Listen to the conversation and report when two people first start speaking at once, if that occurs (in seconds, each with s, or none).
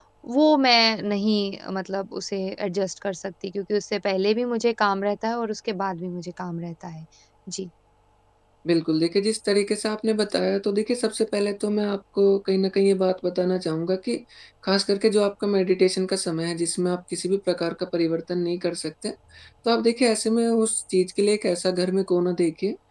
none